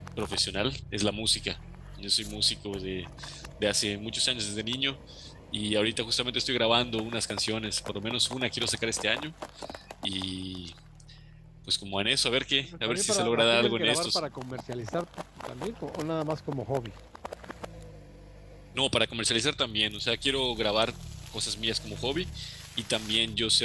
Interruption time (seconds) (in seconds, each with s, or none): 12.6 s